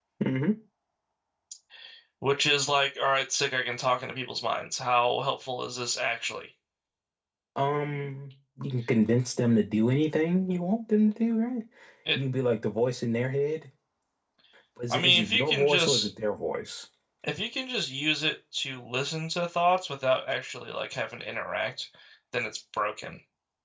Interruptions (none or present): present